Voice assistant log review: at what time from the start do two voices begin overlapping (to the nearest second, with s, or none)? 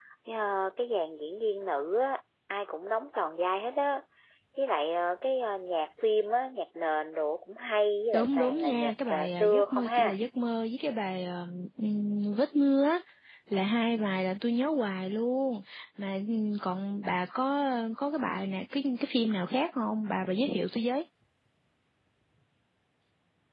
8 s